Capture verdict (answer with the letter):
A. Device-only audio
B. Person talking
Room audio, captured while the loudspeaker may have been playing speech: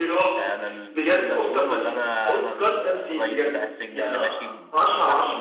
B